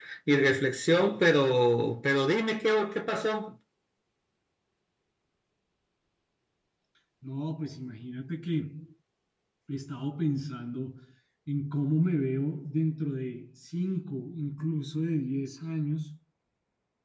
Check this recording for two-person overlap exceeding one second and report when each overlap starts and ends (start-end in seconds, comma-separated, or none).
none